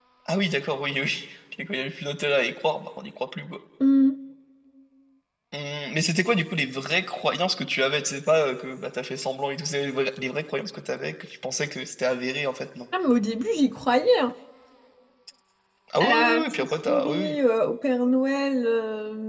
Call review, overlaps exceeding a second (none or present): present